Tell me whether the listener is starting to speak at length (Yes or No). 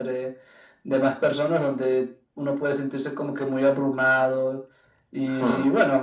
No